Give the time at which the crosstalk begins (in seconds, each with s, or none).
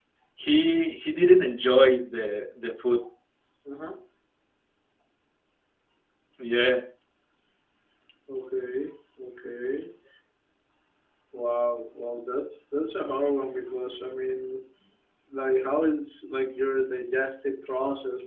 none